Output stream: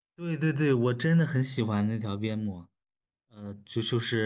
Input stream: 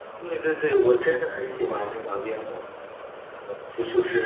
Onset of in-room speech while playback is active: none

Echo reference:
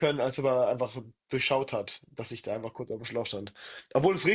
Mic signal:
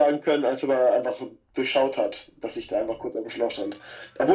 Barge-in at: none

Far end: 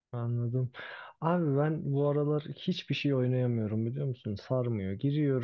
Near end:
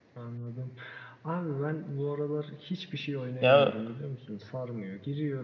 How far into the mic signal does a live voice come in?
3.4 s

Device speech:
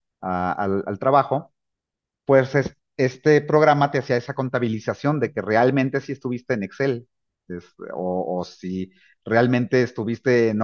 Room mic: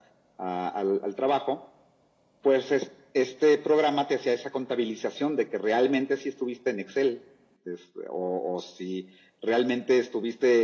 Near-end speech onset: none

